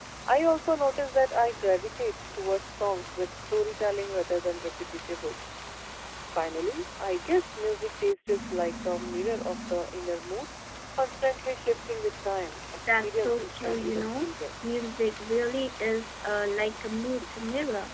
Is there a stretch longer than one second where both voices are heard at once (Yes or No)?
Yes